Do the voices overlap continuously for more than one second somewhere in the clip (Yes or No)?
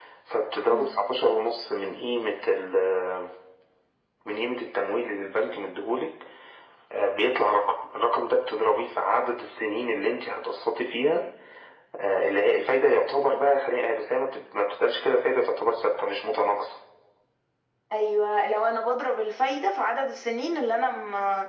No